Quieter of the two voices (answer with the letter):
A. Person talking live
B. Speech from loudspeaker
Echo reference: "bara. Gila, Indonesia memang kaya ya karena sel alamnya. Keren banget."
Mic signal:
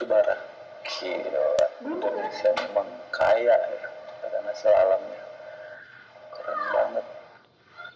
A